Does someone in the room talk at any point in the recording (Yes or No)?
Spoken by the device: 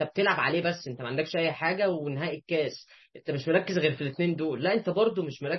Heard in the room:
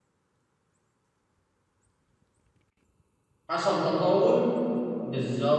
Yes